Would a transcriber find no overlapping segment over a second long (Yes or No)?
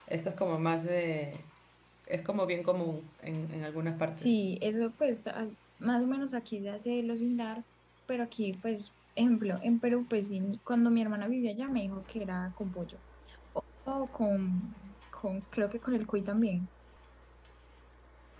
Yes